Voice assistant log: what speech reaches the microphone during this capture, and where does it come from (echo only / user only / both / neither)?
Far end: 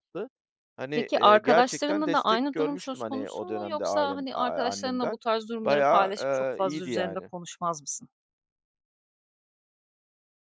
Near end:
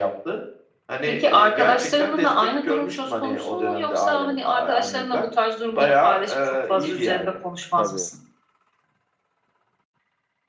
both